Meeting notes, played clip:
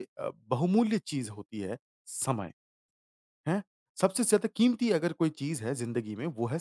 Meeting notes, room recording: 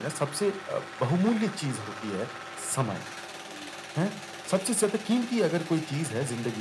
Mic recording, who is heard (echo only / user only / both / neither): echo only